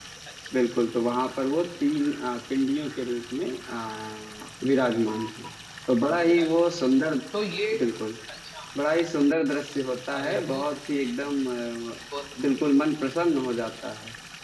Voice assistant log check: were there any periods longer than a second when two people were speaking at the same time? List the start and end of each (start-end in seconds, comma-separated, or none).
none